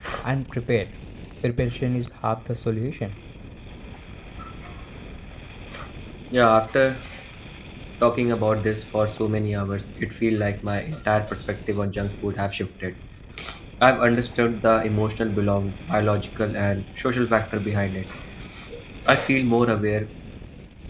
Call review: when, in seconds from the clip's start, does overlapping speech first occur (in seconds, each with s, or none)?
none